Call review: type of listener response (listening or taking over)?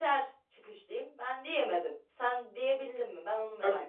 taking over